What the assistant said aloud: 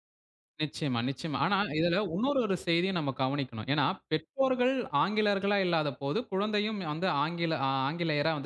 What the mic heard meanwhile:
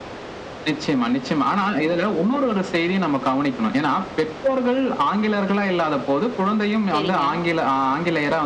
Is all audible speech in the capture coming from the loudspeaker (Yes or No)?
No